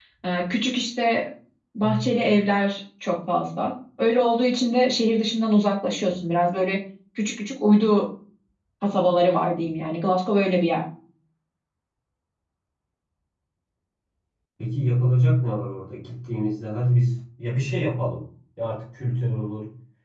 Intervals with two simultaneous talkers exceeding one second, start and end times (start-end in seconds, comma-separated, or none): none